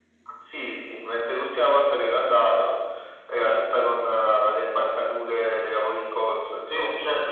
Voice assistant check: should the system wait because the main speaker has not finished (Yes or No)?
No